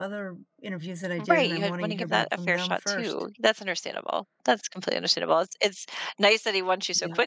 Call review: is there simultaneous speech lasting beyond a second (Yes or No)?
Yes